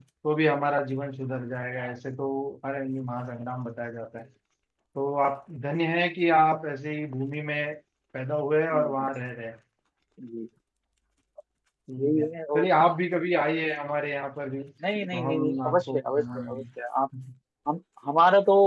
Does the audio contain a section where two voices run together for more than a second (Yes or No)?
Yes